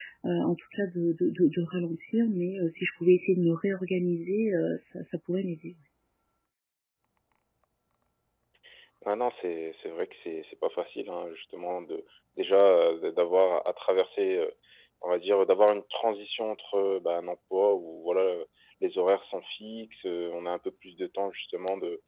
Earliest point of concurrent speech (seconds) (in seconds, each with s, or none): none